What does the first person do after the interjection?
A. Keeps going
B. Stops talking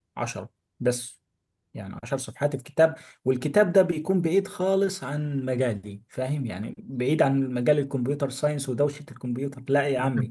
B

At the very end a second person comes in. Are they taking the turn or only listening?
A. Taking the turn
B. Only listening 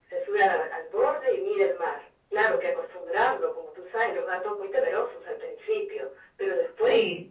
B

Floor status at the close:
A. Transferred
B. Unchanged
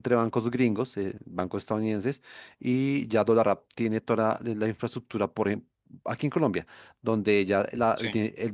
B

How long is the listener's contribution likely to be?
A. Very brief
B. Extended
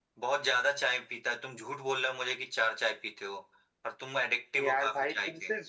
B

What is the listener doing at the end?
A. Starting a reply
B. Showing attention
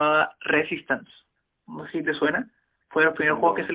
B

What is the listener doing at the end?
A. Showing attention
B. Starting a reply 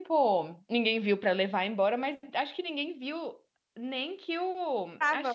A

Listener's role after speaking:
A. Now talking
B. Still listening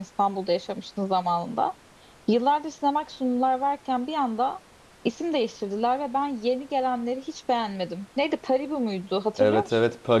A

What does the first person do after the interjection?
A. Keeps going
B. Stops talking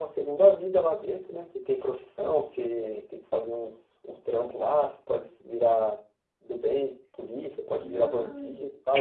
B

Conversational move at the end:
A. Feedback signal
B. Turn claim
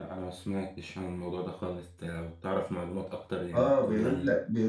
B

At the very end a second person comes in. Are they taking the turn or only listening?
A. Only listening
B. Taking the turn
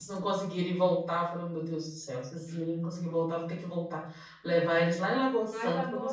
B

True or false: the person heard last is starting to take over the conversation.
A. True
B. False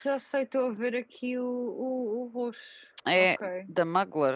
A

